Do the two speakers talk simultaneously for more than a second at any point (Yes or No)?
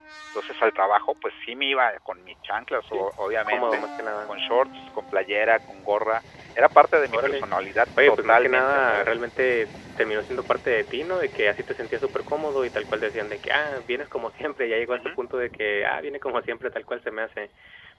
Yes